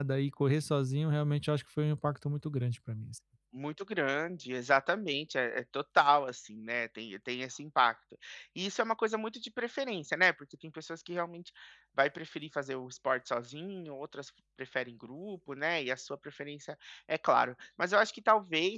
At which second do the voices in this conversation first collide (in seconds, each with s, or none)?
none